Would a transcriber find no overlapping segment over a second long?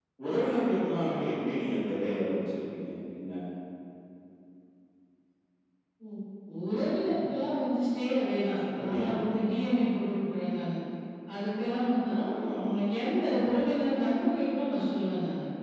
Yes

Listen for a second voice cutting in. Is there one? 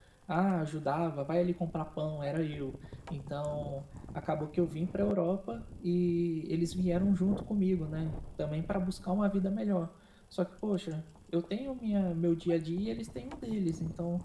No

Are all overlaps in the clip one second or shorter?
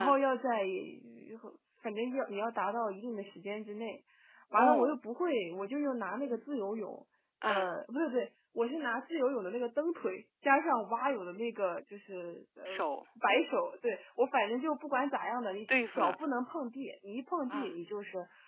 Yes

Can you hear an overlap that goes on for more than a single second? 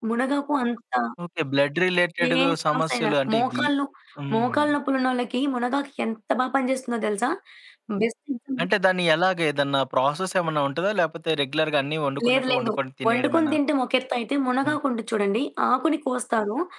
Yes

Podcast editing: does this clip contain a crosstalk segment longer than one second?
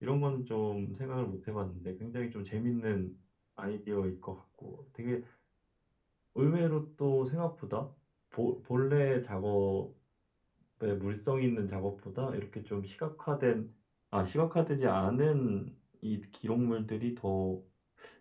No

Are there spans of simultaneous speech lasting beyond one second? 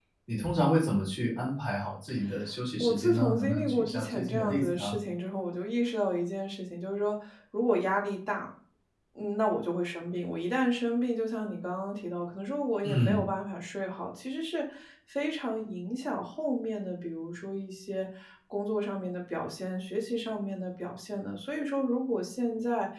Yes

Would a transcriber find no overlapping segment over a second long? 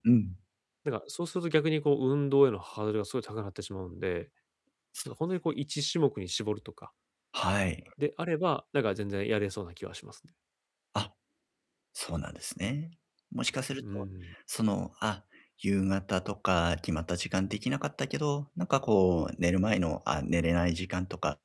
Yes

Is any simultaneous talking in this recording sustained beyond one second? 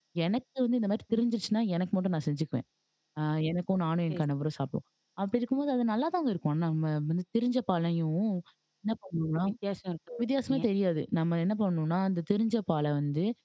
No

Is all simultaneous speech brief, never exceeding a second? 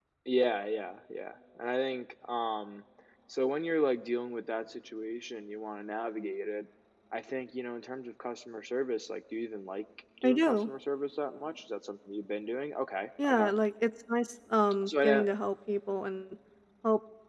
Yes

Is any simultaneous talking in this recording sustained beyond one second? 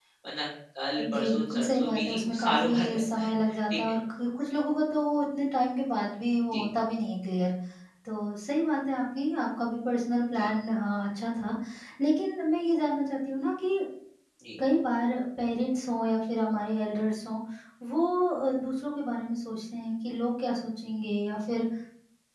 Yes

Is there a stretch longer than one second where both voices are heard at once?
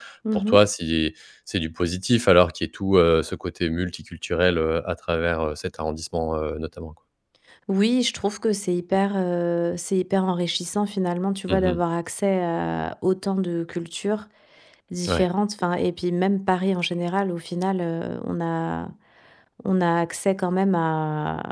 No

